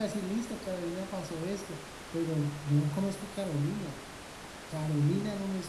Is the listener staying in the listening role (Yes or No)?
No